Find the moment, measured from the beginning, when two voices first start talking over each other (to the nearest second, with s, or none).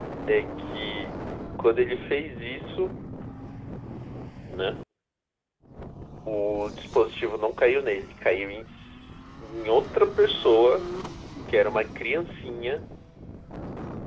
none